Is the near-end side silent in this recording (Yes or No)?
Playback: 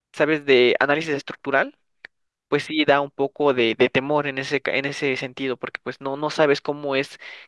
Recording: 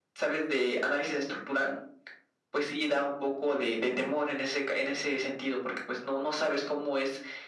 Yes